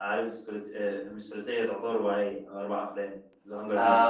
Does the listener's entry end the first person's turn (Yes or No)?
Yes